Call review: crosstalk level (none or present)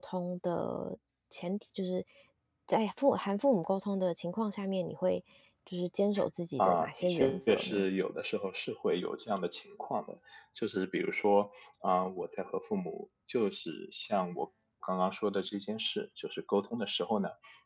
present